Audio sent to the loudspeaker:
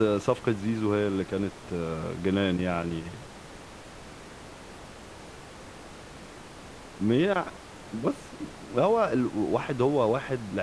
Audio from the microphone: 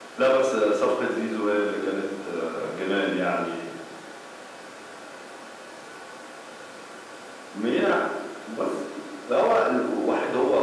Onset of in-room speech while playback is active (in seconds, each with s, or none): none